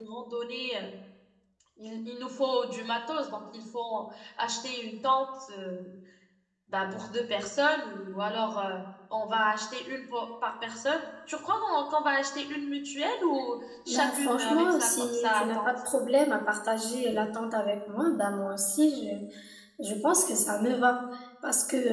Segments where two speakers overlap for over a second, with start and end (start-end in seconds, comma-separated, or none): 13.9-15.7